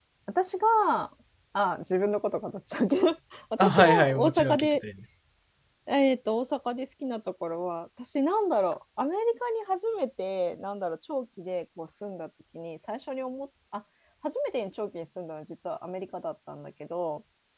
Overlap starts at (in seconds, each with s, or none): 3.6 s